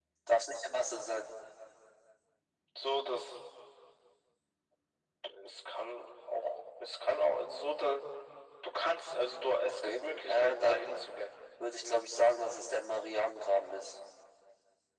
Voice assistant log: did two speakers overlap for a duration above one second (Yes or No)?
Yes